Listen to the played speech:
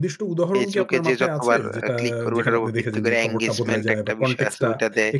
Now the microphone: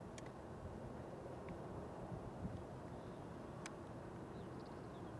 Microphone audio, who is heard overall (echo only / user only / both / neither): neither